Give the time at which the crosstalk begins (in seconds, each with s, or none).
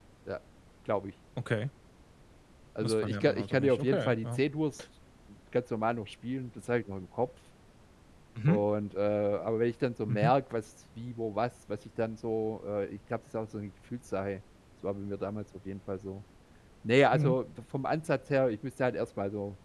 2.8 s